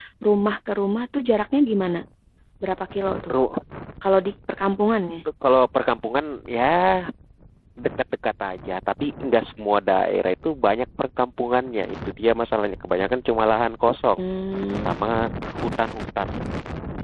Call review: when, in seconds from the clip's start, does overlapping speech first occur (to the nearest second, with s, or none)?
none